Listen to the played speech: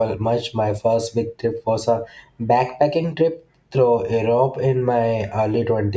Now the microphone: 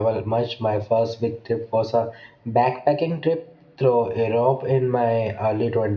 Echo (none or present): present